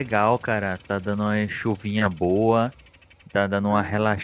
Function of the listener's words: listening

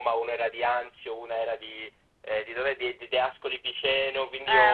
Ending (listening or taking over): listening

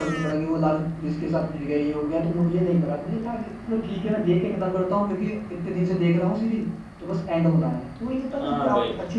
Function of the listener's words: taking over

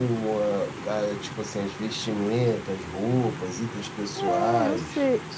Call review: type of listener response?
taking over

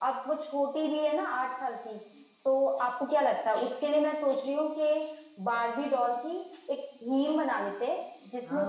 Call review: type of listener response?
taking over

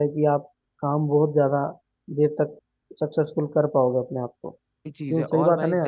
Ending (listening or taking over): taking over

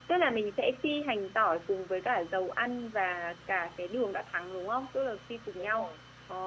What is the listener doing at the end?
taking over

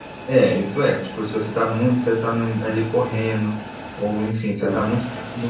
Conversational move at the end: listening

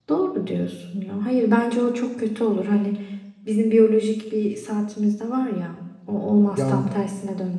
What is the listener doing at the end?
listening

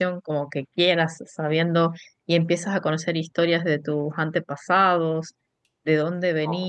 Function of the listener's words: listening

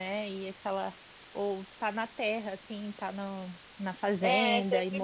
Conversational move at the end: taking over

